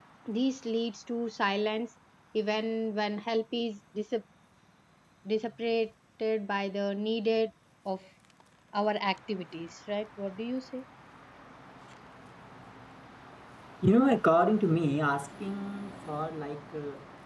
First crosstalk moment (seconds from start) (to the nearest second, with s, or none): none